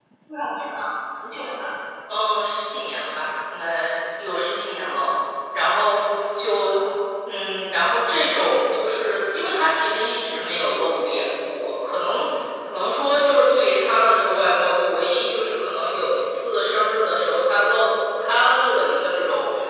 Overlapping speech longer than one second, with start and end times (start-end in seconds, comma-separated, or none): none